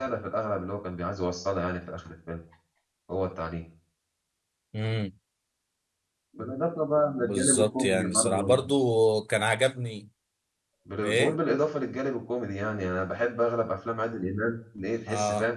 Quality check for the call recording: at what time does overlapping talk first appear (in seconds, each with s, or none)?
7.2 s